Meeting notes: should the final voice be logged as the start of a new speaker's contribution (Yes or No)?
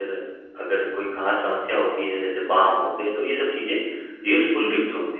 No